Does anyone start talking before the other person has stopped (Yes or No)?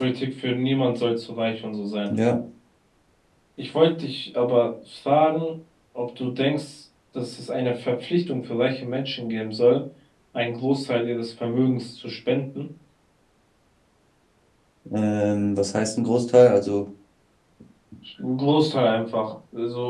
No